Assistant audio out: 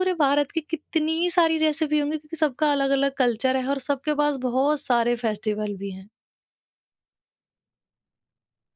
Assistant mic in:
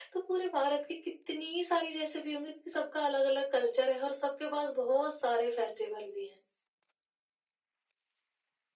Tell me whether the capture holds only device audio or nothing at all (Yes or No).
Yes